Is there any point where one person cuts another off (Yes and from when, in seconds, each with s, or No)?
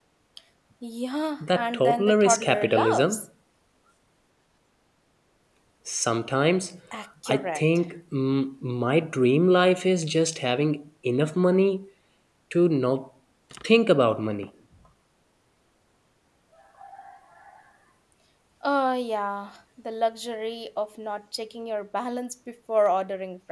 Yes, from 1.5 s